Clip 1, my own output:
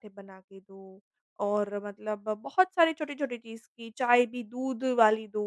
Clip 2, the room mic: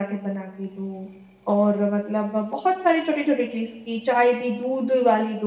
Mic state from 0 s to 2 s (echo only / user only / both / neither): echo only